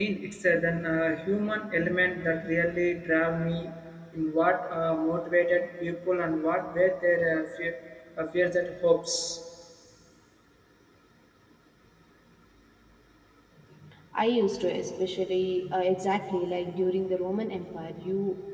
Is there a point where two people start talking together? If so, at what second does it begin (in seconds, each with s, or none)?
none